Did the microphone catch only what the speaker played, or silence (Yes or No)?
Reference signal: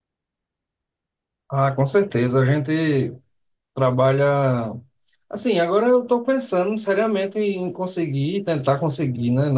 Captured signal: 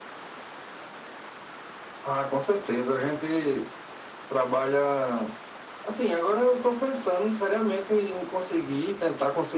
Yes